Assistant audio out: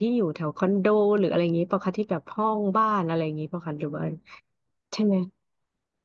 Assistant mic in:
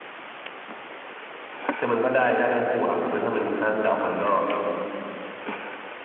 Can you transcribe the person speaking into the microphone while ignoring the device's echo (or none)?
คือมันก็ได้ได้ทั้งคู่ครับคือถ้ามันห้างเก่ามันก็